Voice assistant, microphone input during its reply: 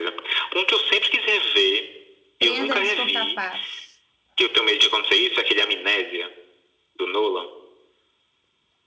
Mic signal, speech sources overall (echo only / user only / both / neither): both